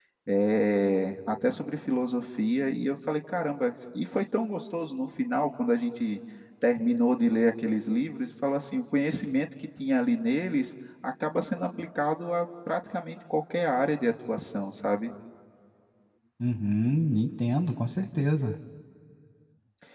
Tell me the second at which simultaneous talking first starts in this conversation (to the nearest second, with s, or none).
none